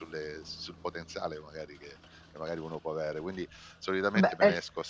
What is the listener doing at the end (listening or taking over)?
listening